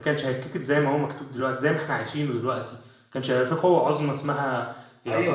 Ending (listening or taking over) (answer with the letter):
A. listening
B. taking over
B